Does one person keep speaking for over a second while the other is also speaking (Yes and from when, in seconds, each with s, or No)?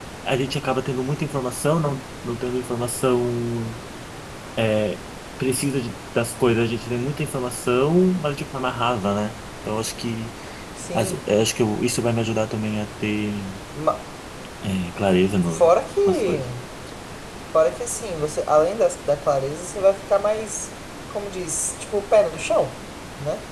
No